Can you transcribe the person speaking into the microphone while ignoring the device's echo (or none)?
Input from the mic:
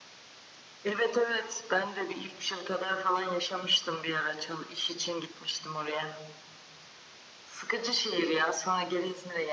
none